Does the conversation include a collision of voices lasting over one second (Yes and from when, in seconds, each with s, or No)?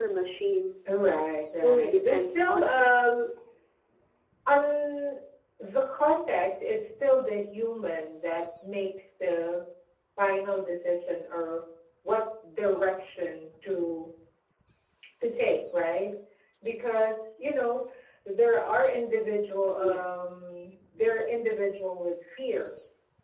Yes, from 1.6 s